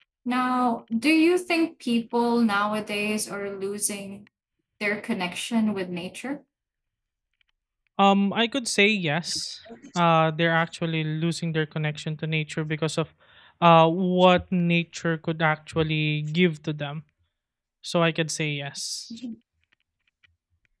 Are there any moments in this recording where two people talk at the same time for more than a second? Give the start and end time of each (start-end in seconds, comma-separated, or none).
none